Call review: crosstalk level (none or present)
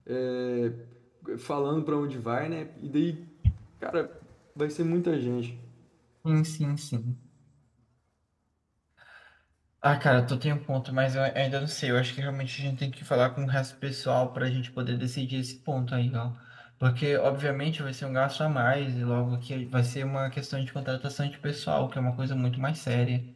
none